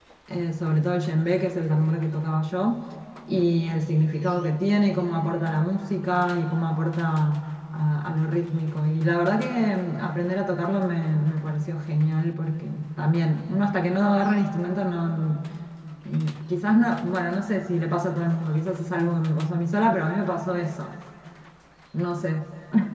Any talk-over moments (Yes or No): No